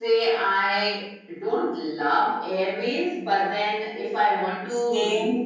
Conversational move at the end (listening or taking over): listening